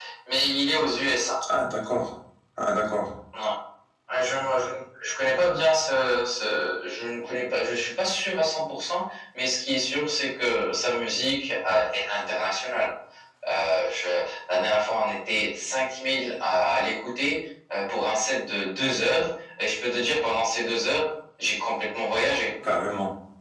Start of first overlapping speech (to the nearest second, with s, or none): none